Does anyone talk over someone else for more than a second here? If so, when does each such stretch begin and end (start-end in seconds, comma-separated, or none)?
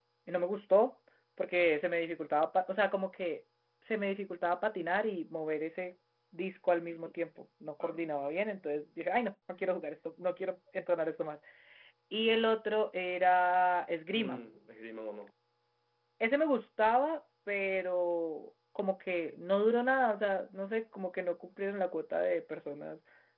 none